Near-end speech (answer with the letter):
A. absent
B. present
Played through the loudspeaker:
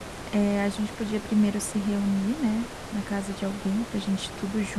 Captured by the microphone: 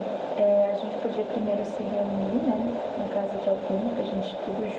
A